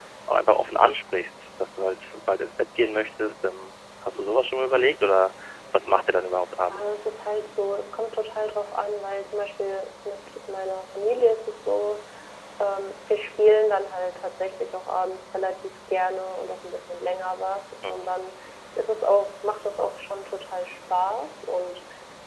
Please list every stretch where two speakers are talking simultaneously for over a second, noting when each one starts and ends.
none

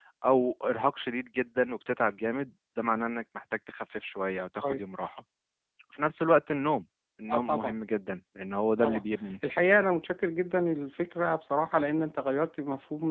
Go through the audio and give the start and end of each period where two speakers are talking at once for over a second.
none

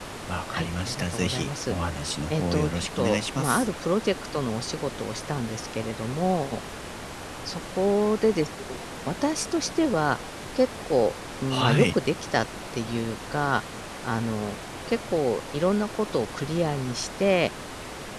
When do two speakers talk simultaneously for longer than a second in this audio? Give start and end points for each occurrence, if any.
0.5-1.8, 2.3-3.7

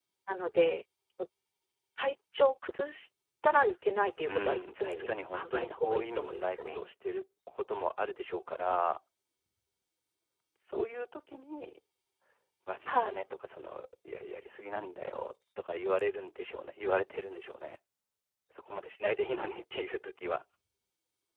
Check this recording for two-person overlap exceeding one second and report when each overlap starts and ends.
4.3-6.8

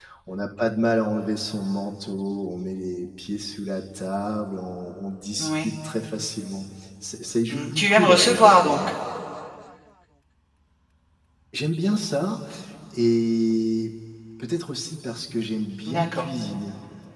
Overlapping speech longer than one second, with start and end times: 7.5-8.8

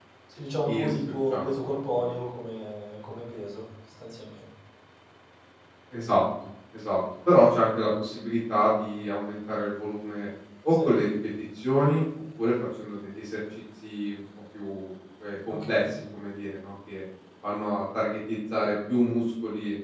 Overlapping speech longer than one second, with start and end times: 0.7-2.1

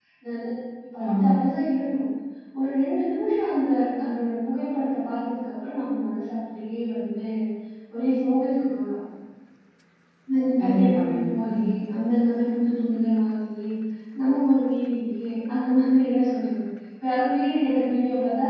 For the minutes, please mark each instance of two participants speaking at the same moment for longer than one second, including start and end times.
10.6-11.9

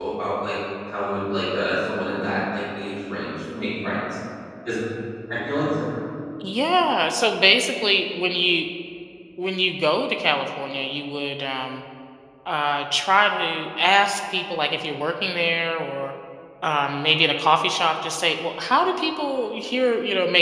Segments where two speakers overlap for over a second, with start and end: none

